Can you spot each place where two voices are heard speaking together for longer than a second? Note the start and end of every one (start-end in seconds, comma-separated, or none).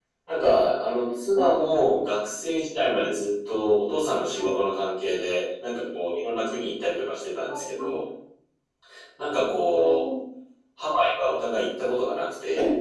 none